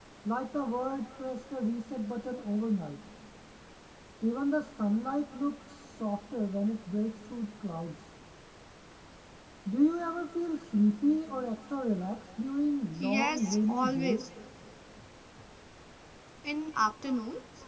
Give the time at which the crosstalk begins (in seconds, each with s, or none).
13.0 s